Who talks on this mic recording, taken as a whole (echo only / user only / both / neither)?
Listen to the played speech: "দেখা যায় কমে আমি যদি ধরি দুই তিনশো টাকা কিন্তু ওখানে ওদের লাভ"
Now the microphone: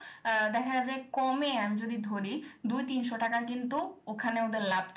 echo only